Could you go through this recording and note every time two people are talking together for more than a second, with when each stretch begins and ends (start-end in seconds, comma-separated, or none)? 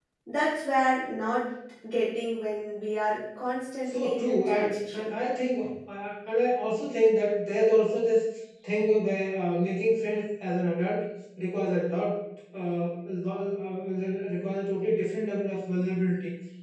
3.9-5.1